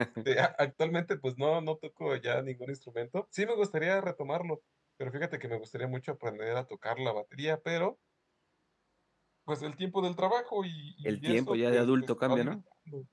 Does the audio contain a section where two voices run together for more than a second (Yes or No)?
Yes